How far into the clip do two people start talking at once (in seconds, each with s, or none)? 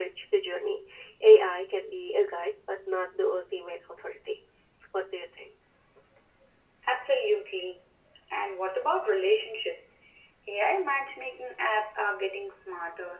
none